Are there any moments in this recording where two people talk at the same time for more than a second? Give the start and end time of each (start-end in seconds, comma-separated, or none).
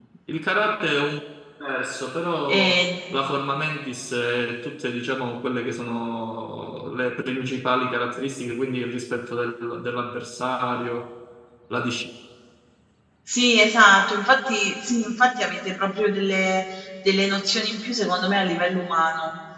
none